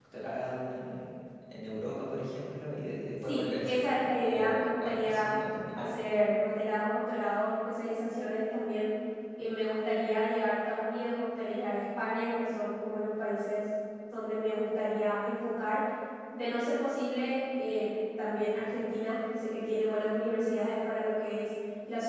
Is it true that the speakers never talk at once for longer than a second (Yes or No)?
No